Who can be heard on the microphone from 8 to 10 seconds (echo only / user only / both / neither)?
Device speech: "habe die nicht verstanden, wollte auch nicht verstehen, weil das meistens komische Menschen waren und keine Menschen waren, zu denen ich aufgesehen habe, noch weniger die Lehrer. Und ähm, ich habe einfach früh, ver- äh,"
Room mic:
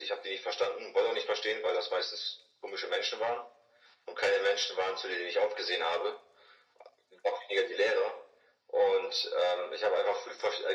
echo only